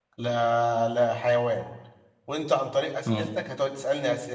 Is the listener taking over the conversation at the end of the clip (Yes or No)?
No